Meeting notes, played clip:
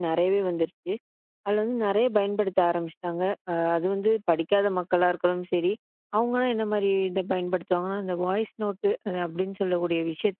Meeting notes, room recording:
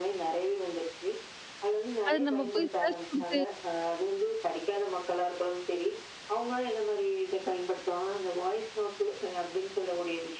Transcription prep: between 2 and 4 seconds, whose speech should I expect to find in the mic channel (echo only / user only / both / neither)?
both